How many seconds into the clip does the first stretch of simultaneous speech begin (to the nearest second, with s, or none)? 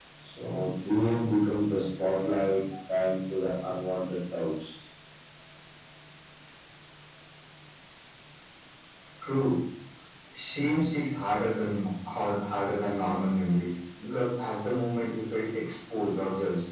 none